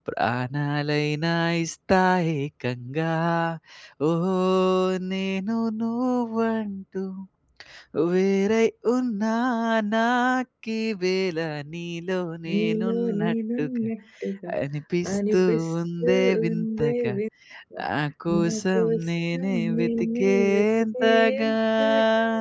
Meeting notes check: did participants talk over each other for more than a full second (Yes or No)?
Yes